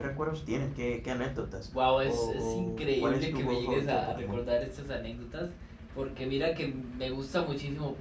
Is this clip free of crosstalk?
No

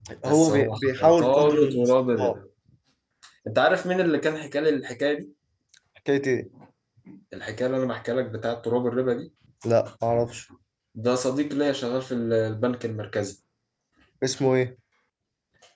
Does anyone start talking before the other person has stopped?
Yes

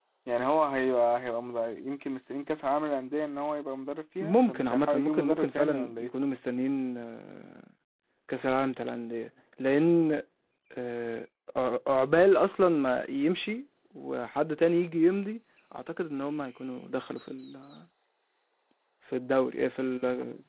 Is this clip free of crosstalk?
No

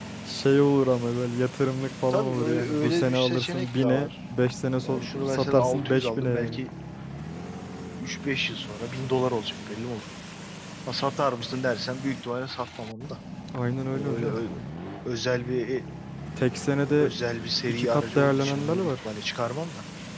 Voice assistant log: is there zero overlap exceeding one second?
No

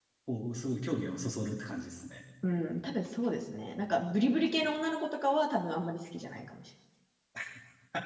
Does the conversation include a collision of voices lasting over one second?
No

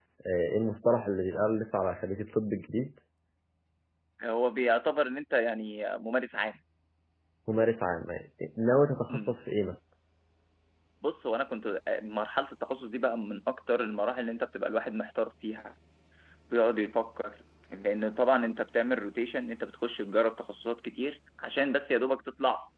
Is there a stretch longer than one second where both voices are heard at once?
No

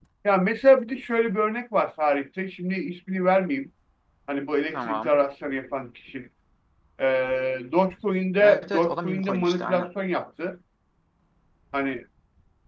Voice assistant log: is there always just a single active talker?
No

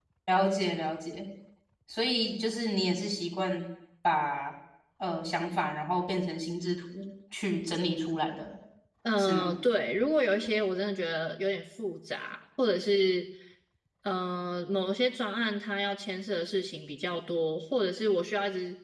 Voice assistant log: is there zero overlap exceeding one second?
Yes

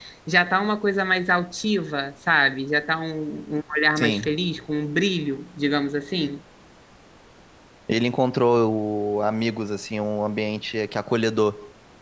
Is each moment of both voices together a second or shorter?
Yes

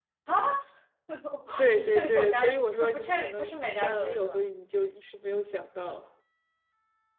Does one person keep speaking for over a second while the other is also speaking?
Yes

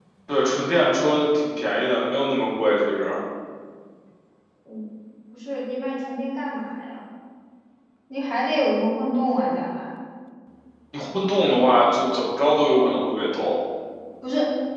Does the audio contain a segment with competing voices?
No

